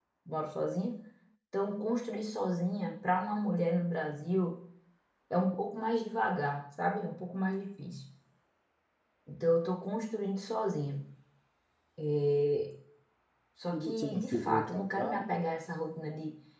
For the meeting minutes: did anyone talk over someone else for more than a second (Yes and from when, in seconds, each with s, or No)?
Yes, from 13.7 s